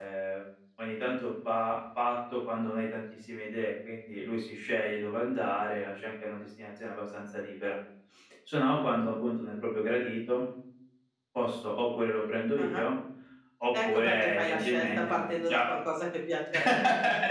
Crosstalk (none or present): present